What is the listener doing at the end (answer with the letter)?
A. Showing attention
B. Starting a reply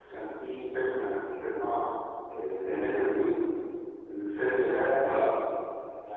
A